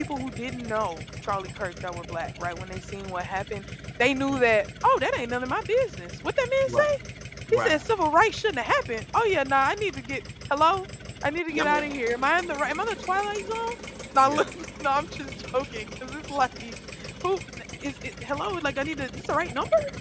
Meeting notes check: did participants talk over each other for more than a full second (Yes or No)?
No